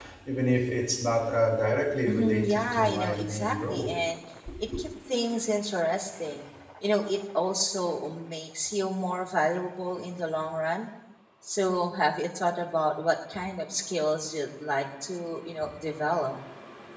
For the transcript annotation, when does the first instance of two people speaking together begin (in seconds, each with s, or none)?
2.1 s